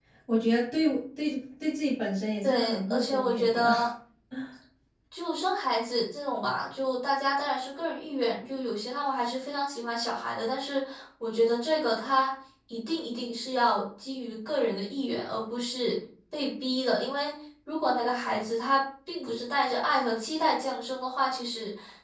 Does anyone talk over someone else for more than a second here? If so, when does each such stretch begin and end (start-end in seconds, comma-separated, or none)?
2.4-3.7